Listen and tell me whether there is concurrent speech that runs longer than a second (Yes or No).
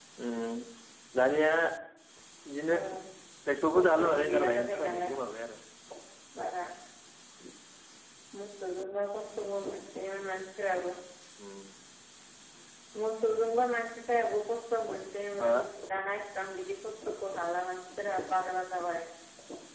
Yes